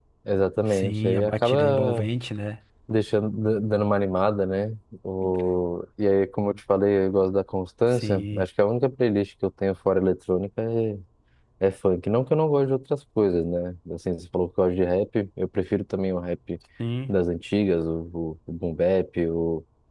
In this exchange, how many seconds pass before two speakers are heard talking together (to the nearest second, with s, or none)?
1 s